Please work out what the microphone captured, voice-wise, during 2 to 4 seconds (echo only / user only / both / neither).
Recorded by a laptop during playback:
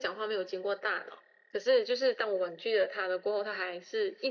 echo only